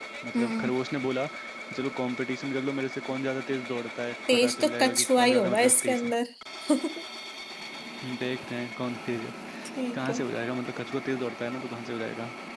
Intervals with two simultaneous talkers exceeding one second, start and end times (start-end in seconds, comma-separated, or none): 4.3-6.1